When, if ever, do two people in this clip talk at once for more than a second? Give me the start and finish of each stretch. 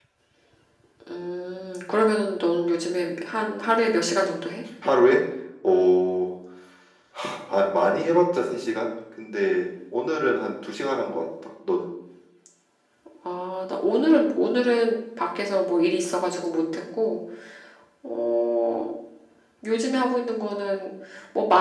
none

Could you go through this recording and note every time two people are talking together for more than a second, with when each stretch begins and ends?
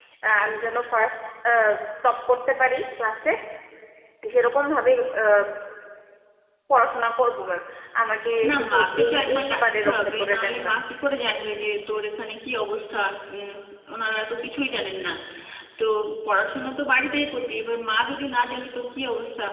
8.5-10.8

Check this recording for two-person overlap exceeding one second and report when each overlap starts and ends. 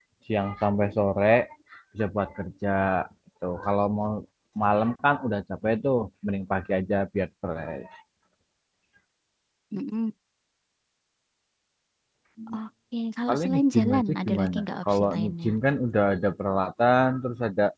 13.3-15.5

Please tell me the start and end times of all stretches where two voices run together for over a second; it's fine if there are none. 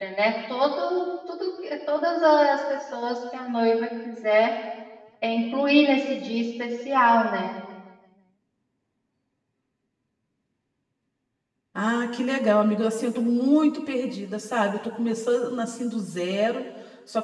none

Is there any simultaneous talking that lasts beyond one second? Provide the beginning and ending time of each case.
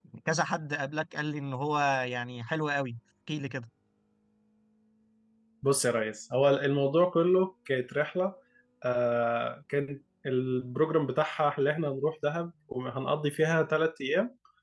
none

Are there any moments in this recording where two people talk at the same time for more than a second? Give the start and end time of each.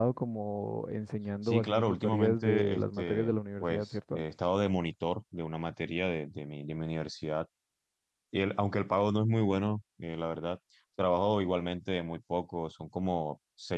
1.4-4.2

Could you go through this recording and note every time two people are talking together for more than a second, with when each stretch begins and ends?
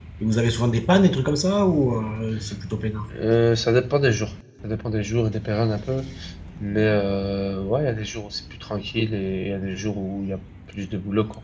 none

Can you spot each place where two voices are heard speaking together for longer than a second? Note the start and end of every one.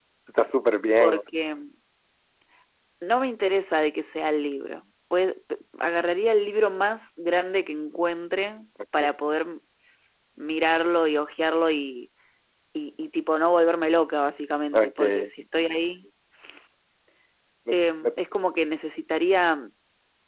none

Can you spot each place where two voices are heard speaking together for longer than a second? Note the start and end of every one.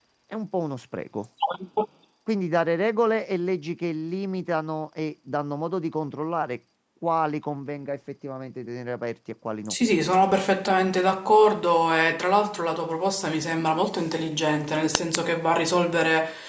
none

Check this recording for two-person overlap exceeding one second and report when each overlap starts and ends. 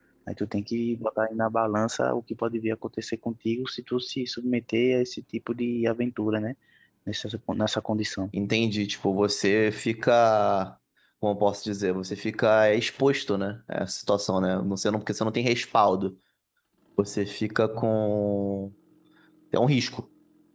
none

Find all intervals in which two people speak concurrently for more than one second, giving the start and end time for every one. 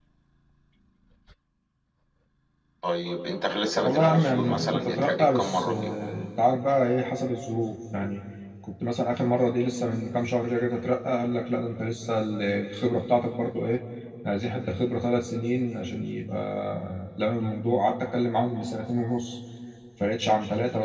3.8-5.9

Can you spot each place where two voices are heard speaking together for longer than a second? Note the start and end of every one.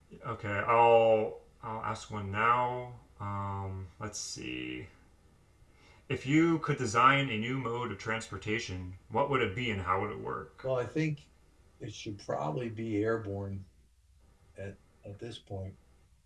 none

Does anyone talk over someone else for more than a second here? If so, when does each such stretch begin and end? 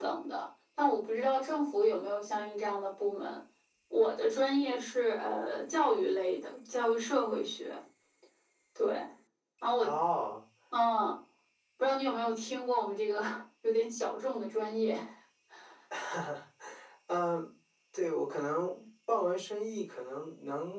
none

